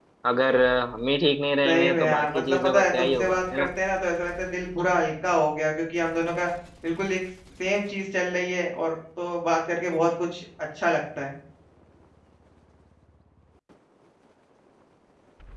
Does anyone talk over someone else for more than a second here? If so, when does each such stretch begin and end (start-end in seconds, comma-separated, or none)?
1.6-3.7